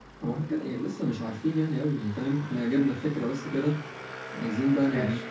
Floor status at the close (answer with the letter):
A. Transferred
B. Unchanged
B